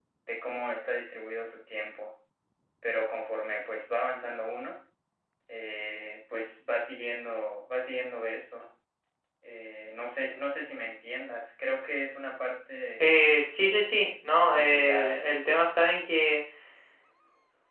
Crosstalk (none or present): present